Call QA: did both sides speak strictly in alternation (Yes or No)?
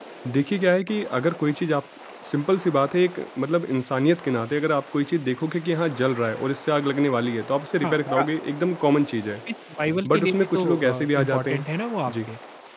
No